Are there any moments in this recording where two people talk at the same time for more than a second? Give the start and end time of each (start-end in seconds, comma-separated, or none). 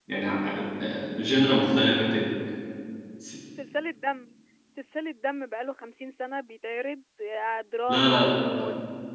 none